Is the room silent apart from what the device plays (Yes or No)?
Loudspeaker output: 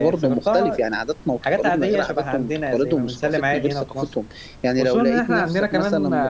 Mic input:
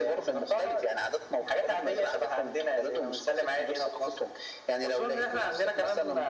Yes